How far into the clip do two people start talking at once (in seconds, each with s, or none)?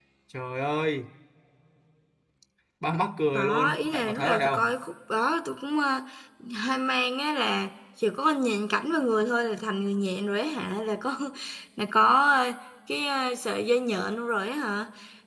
3.3 s